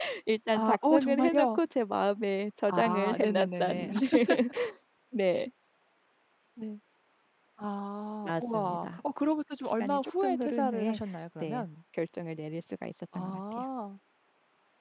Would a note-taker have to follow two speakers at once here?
Yes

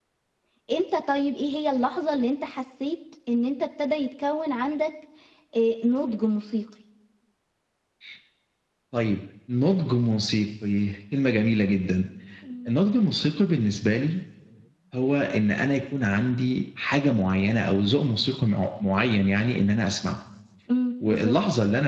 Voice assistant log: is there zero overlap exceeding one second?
Yes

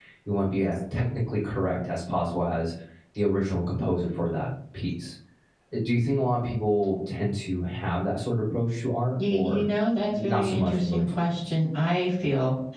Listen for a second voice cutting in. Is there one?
Yes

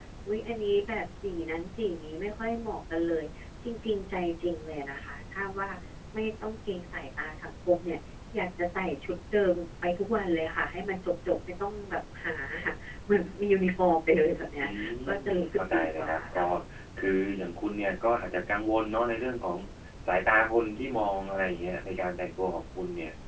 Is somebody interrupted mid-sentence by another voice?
Yes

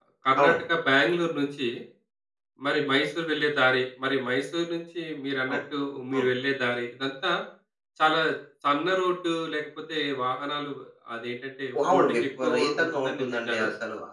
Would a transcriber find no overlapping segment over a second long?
No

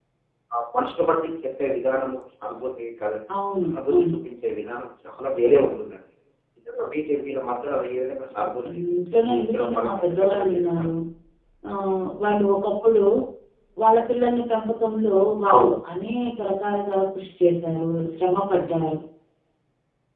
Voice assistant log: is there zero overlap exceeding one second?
No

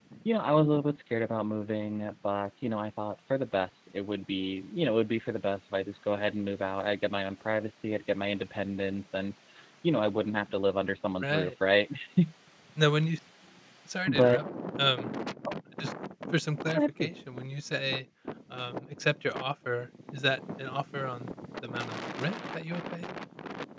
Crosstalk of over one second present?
No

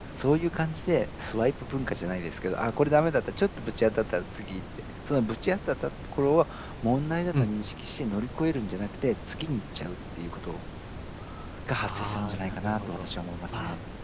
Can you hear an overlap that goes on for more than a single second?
Yes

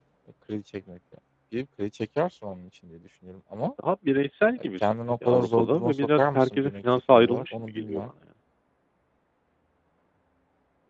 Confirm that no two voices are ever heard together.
No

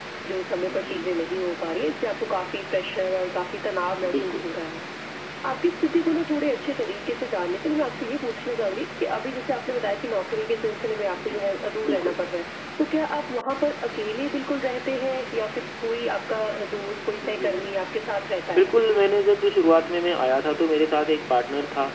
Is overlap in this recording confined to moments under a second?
Yes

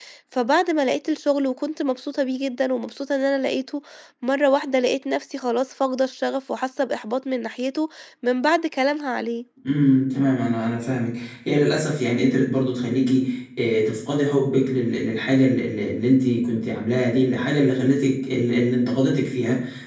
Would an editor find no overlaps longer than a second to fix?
Yes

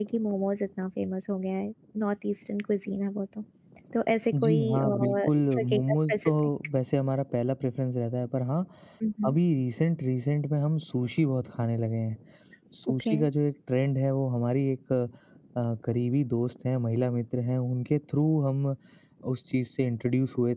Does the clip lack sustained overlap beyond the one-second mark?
No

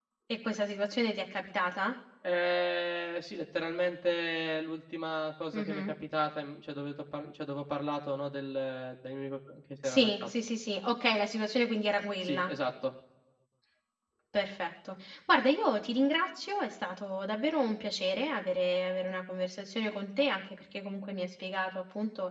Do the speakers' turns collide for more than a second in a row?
No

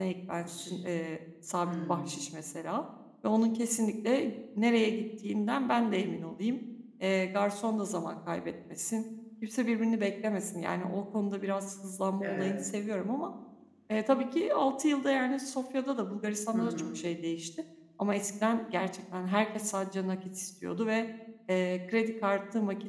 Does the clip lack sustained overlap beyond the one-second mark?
Yes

